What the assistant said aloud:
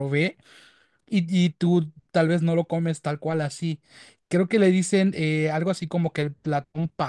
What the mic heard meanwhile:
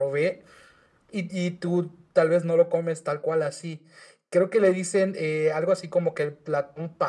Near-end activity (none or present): none